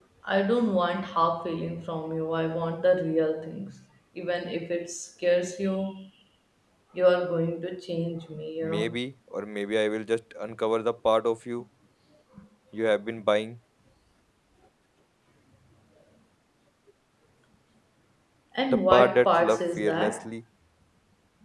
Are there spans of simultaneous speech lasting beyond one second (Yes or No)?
Yes